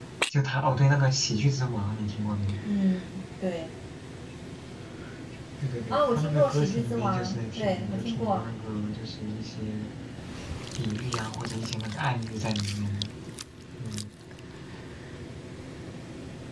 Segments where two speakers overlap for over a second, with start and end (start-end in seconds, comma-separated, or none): 5.9-8.4